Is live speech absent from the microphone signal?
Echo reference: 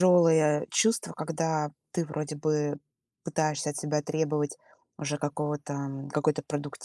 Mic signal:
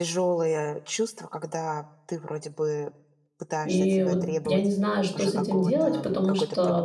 No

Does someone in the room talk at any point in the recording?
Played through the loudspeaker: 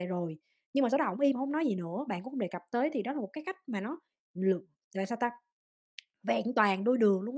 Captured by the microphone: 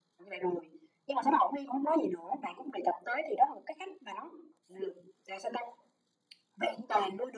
No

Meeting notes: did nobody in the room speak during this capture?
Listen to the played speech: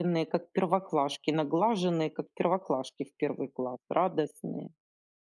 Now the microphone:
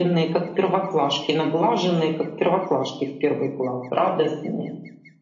Yes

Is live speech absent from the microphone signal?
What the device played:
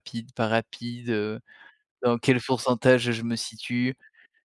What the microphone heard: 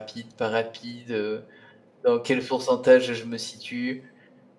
Yes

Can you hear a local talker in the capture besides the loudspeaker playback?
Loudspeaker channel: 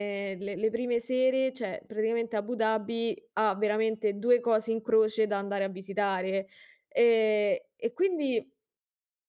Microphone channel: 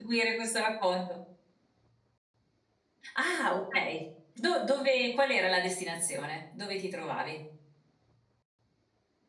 Yes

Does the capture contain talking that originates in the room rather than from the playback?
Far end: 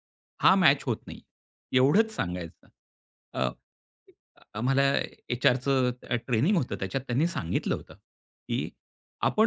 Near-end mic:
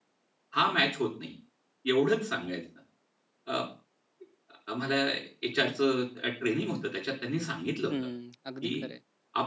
Yes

